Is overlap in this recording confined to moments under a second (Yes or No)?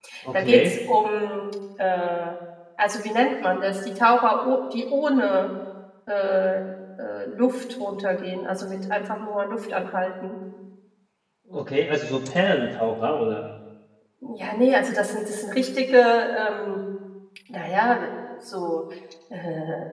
Yes